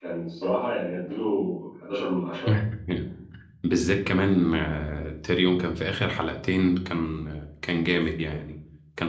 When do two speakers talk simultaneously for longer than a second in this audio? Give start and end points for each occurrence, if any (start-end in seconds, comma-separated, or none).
none